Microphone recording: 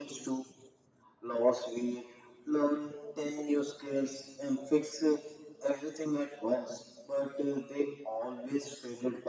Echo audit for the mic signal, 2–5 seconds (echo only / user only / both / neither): echo only